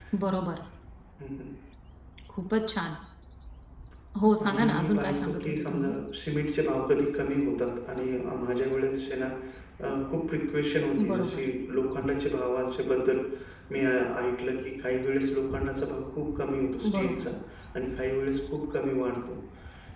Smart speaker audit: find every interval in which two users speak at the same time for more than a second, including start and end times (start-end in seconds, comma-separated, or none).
4.5-5.9